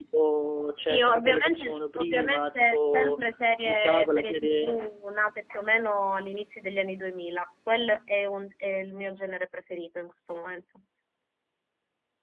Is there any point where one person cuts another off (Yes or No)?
Yes